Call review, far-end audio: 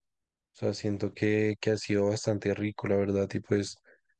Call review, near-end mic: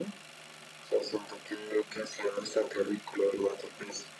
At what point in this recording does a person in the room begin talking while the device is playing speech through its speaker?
none

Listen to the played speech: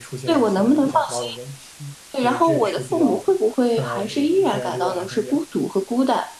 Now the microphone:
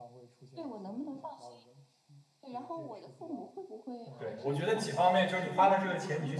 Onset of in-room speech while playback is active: 4.2 s

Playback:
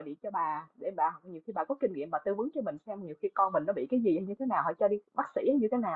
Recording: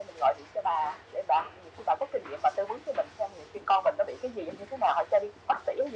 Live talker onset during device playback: none

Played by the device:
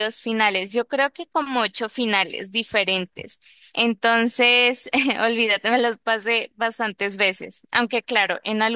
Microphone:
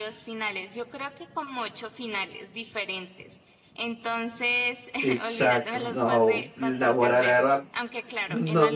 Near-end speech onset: 5.0 s

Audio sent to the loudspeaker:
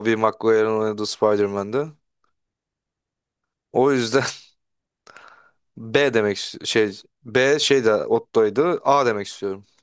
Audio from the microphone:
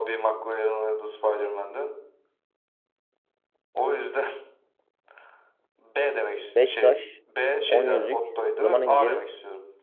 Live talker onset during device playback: 6.5 s

